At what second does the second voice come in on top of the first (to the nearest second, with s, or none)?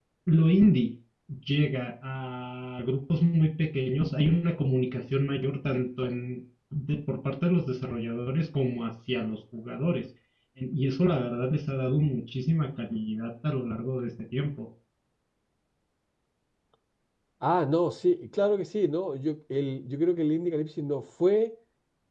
none